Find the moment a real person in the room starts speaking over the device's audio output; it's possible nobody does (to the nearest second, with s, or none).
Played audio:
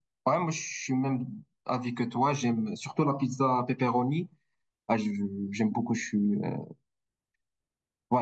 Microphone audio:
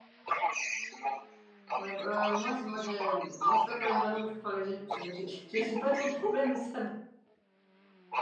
2 s